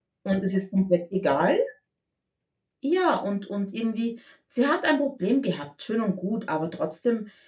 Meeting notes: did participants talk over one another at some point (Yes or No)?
No